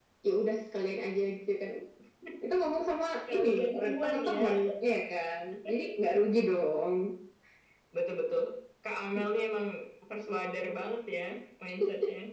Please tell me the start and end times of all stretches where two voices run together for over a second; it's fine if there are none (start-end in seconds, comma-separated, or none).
3.1-4.5